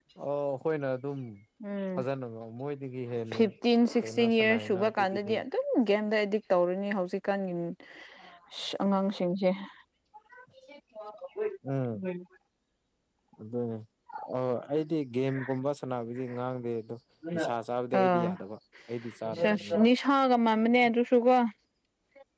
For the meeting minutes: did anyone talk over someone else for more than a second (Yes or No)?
Yes